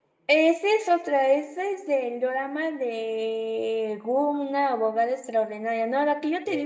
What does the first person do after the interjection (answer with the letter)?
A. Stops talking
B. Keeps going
B